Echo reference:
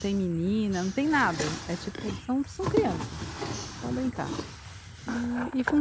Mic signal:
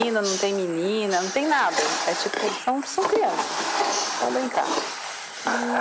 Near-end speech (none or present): none